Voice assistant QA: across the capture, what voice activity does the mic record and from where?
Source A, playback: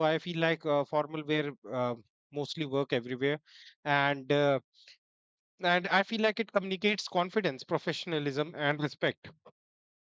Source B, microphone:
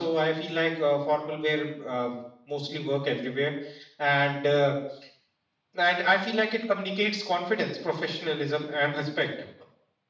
echo only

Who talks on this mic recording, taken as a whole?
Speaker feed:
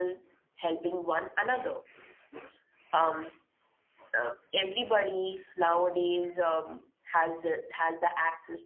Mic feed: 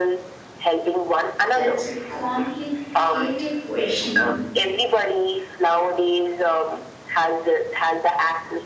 both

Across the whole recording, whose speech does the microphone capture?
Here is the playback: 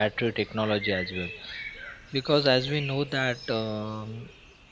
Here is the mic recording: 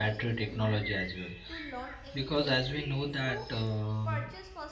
both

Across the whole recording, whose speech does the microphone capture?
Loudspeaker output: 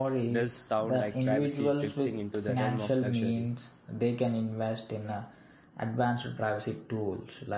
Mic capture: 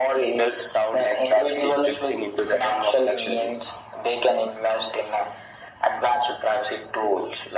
echo only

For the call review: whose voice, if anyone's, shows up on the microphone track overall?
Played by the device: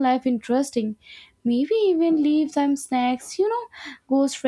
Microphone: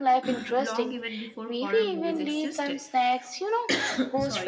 both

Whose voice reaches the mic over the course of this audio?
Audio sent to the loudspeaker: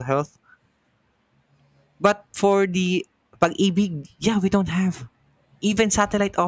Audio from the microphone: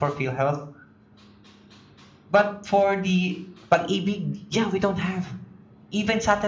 echo only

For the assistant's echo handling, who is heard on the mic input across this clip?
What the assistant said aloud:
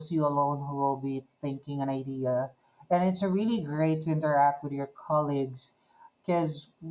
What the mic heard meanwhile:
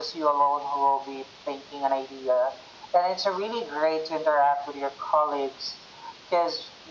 echo only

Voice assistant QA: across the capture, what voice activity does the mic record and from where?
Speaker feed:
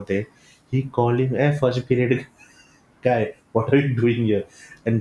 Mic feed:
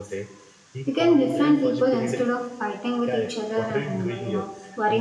both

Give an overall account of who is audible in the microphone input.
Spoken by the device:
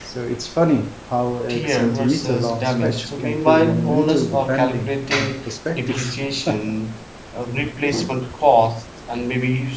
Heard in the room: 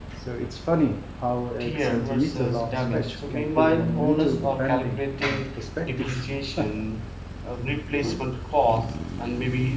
echo only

